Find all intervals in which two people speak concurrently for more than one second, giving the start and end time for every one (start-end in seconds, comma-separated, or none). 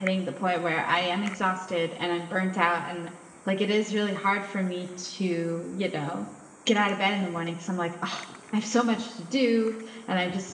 none